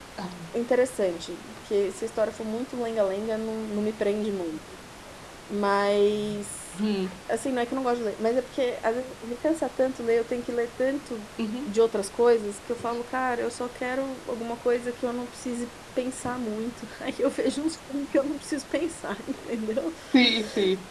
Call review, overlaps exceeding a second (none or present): none